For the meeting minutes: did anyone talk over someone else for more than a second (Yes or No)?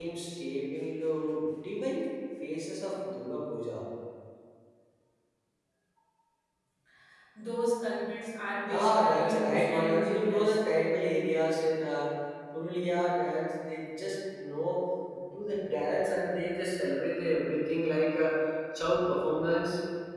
Yes